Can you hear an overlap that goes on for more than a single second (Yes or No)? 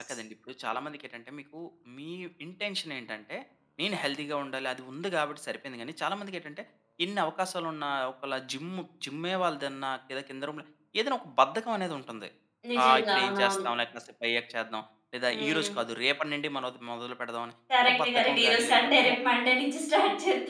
Yes